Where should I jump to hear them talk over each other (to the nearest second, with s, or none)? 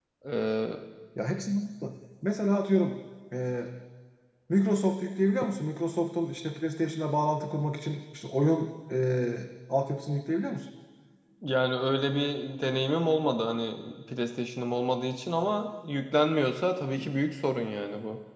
none